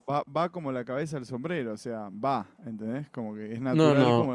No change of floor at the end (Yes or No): No